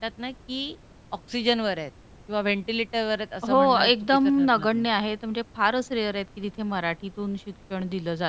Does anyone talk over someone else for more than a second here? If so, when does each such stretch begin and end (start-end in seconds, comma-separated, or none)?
3.5-4.9